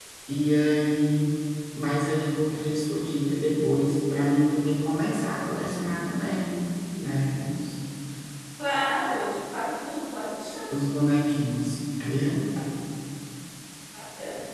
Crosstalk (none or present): none